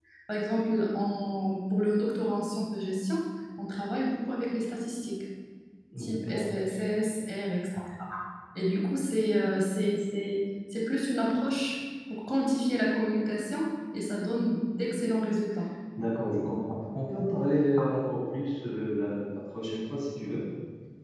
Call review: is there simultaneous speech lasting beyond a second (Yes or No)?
No